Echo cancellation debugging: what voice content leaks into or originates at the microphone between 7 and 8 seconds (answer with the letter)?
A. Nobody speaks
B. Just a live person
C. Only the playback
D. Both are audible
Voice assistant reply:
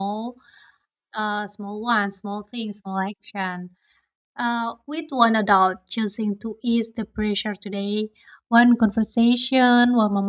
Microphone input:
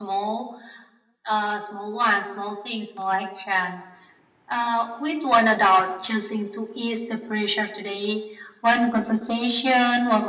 C